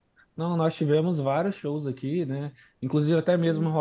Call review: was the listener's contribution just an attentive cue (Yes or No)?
Yes